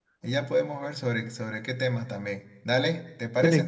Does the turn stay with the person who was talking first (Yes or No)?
Yes